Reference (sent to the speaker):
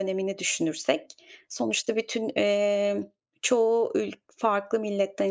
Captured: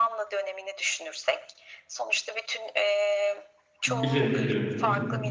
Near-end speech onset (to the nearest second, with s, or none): 4 s